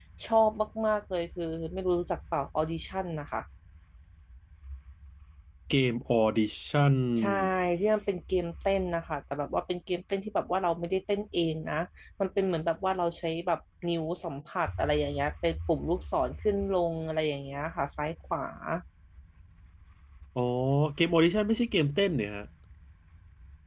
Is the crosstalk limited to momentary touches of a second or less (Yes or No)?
Yes